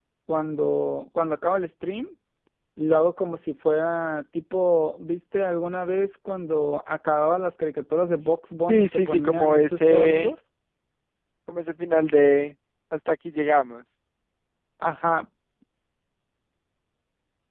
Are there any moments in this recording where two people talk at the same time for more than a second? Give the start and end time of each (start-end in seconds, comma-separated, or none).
8.7-10.3